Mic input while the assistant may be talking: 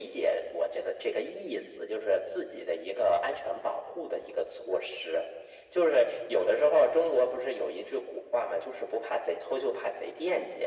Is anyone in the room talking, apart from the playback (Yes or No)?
No